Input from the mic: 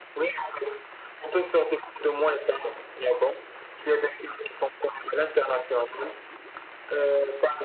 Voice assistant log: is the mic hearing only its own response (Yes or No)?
Yes